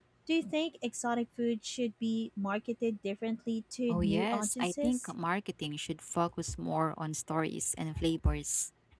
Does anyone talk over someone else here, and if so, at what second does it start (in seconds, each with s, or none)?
3.9 s